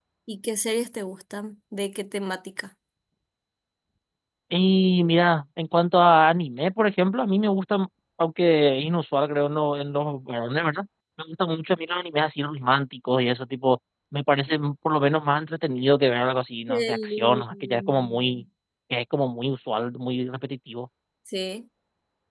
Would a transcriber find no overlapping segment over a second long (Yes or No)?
No